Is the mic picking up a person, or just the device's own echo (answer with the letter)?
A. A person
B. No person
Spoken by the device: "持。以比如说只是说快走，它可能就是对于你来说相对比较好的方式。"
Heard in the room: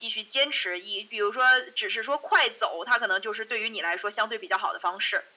B